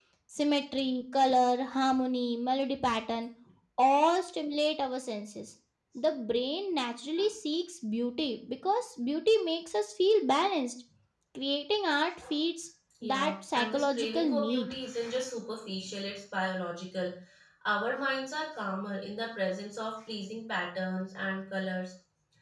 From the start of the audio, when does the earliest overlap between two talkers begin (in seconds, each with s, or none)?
13.0 s